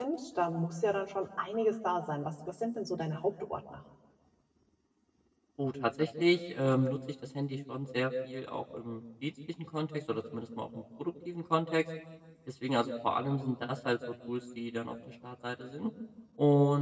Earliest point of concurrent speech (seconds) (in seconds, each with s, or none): none